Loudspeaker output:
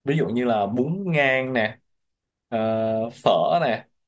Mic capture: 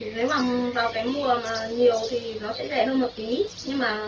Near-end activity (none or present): present